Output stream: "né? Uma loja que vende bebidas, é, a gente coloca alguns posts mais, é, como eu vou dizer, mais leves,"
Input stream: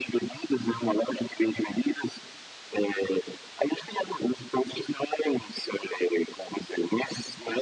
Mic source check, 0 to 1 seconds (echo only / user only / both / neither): echo only